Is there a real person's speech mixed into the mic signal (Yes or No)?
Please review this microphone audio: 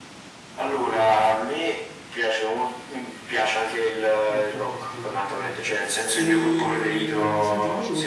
Yes